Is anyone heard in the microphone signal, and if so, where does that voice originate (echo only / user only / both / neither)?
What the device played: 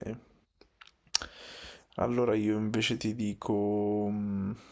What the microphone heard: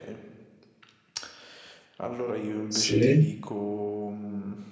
both